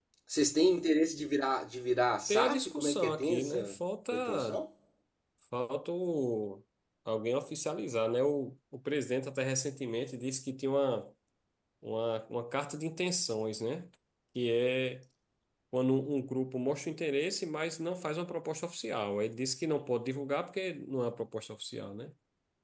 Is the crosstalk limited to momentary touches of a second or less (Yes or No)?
No